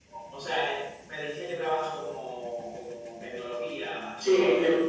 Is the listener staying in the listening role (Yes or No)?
No